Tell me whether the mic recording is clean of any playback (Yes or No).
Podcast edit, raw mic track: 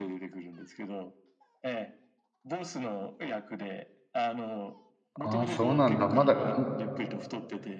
No